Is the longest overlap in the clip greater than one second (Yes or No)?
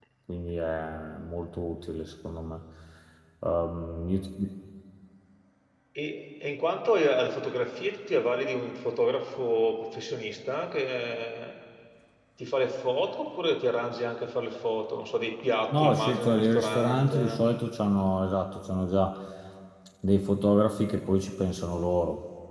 Yes